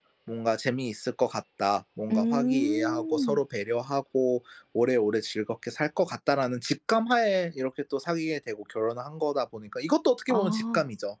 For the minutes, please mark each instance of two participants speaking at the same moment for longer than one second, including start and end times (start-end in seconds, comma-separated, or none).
2.1-3.4